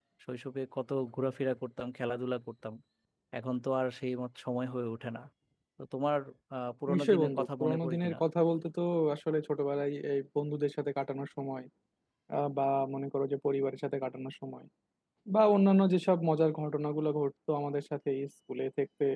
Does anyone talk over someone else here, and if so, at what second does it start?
6.9 s

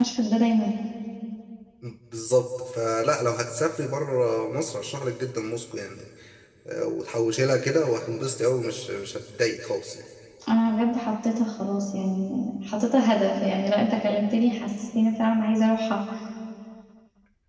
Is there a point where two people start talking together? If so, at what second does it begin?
none

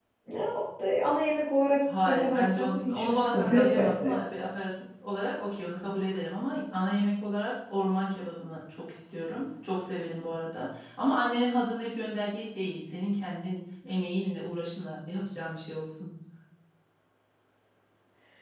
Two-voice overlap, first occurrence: 1.8 s

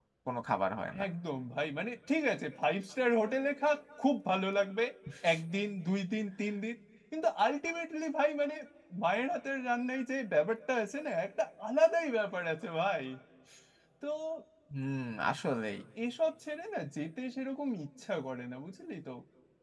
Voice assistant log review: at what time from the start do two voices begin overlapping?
none

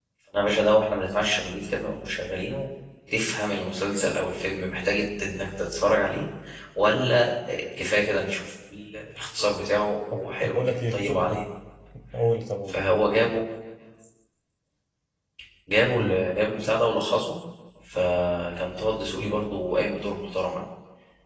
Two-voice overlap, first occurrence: 10.1 s

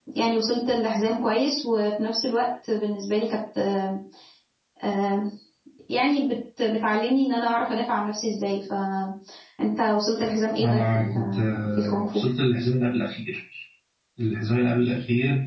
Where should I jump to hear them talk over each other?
10.6 s

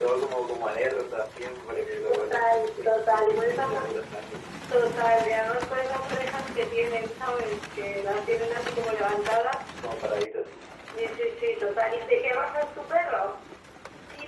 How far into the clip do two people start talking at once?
2.1 s

